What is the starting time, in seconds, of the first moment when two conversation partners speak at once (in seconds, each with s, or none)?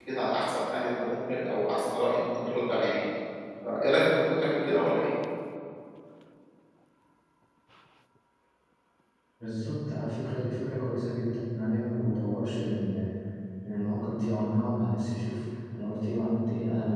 none